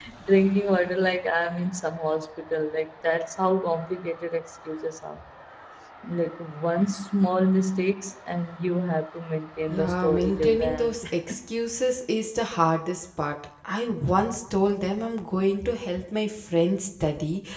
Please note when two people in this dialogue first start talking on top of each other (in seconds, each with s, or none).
9.6 s